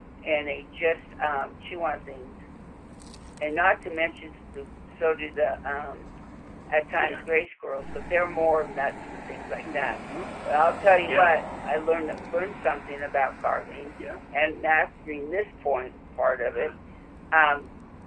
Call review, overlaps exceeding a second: none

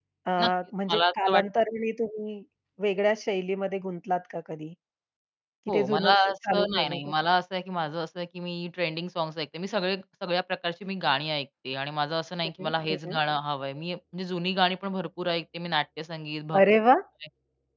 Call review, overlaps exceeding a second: present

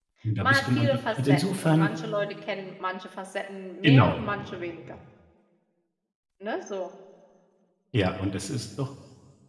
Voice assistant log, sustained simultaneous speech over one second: present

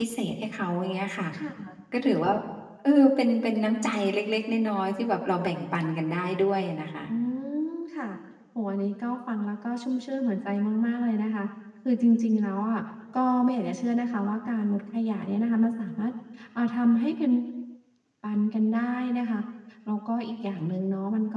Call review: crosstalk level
none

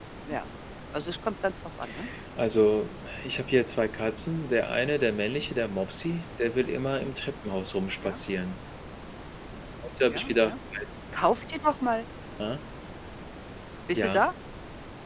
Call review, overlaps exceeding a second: none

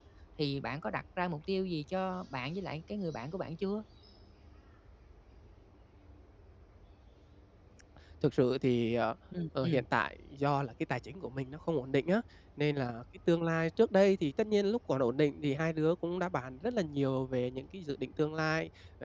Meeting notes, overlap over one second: none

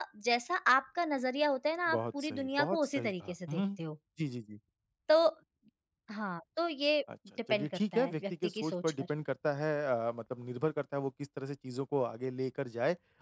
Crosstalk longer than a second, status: present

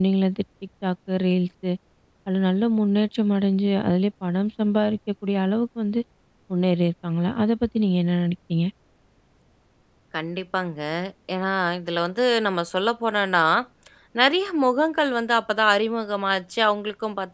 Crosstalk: none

